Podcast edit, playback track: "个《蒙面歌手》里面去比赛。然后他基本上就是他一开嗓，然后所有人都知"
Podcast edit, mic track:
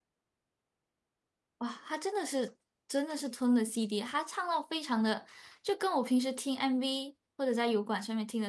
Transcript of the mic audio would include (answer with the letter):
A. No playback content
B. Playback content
A